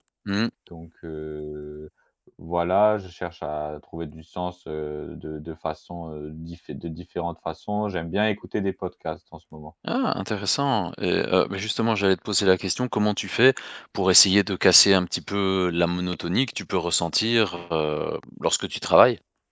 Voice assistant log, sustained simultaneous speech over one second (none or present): none